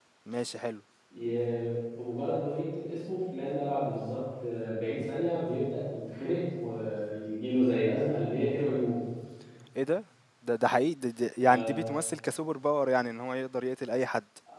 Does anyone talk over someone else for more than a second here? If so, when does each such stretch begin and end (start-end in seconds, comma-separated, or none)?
none